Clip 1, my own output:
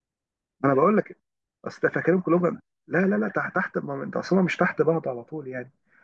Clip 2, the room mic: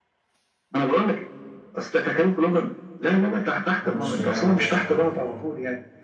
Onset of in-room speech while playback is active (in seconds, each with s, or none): 3.8 s